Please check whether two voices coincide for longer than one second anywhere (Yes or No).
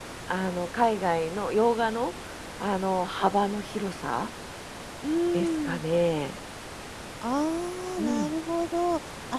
No